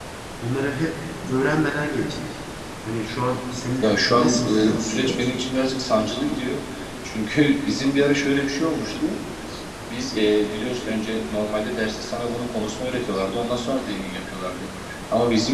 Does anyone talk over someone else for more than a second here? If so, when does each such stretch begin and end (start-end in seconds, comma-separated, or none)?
3.8-5.2